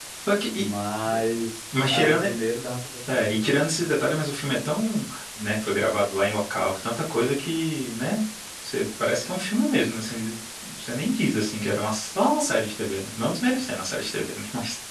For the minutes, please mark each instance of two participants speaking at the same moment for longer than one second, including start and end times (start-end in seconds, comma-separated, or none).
none